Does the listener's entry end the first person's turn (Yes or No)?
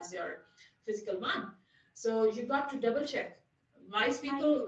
No